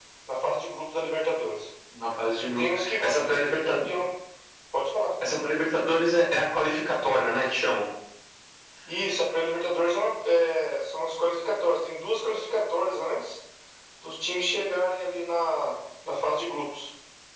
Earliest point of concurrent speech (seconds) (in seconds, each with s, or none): 2.4 s